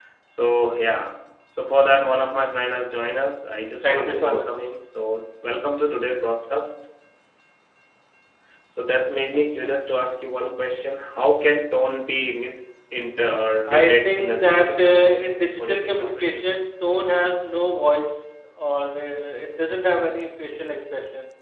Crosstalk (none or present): present